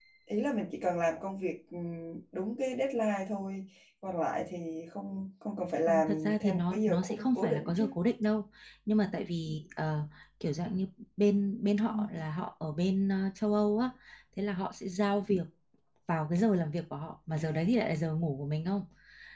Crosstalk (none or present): present